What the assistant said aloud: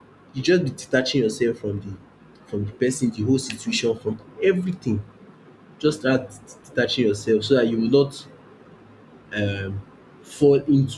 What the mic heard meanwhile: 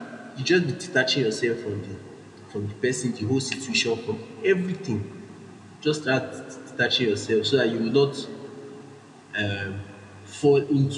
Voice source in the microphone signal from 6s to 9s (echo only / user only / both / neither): echo only